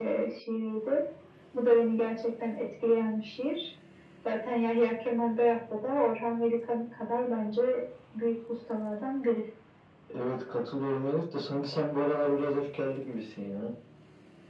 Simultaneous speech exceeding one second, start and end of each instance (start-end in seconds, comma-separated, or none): none